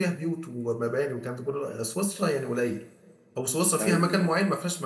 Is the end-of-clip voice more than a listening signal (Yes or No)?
No